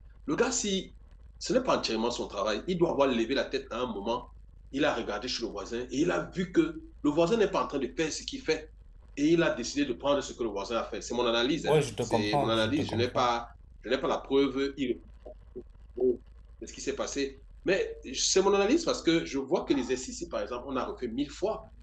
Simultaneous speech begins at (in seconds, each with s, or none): 11.5 s